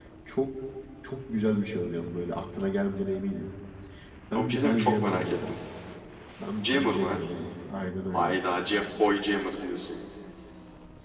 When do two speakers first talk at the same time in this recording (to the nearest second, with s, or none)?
4 s